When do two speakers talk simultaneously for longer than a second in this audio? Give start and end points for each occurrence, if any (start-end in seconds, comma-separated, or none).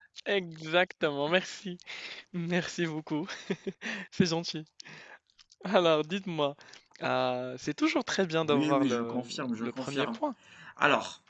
8.4-10.2